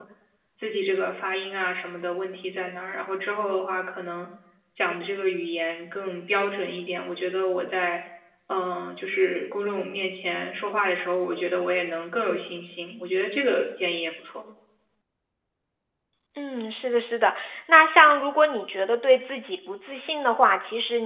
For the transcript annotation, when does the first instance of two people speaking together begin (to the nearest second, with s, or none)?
none